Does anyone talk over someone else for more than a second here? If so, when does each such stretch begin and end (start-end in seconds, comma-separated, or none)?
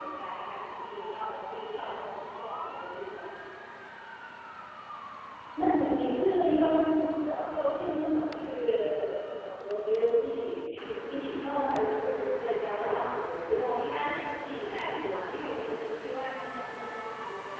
13.6-15.4